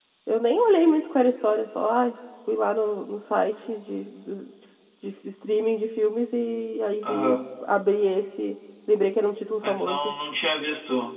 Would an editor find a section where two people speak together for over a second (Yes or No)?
No